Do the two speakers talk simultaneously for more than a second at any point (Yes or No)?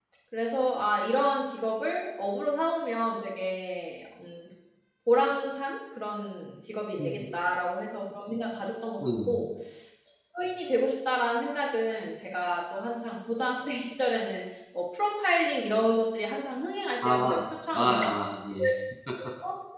No